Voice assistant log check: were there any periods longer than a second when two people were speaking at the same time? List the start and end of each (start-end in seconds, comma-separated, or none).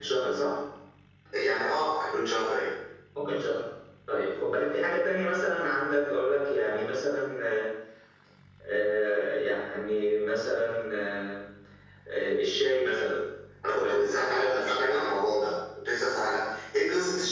13.8-15.0